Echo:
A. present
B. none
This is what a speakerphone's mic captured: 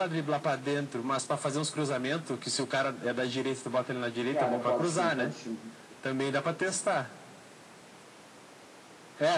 A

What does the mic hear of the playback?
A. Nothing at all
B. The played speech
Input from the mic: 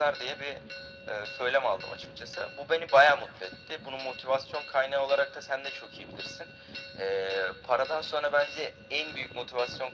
B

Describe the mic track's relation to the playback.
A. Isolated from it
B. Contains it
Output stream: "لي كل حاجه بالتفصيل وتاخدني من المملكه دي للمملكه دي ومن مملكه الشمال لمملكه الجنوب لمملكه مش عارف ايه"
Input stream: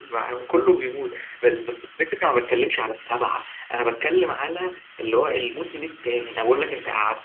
A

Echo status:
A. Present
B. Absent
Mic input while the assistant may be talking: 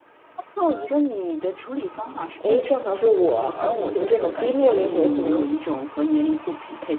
A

